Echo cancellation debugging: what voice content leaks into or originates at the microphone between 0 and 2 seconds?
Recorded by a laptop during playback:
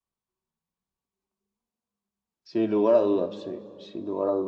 neither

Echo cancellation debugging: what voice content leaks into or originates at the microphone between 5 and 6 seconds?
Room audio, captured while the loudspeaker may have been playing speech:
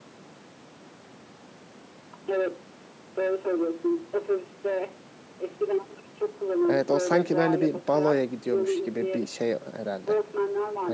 echo only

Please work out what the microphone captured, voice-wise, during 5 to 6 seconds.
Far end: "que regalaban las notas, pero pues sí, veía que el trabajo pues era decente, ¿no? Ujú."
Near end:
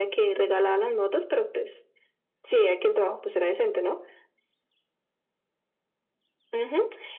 neither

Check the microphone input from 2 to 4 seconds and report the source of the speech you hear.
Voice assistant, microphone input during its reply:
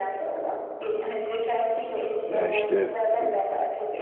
both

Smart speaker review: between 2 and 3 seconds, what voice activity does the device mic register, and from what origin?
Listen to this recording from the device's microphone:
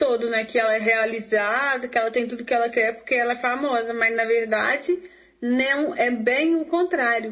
echo only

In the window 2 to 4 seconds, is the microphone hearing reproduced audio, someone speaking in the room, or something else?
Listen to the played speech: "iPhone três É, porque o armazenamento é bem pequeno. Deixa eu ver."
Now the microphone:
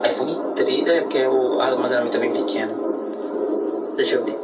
echo only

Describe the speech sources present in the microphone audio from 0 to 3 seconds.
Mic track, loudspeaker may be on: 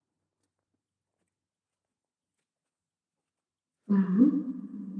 neither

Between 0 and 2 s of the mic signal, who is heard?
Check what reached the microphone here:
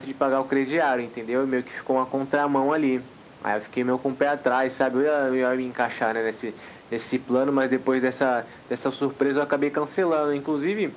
echo only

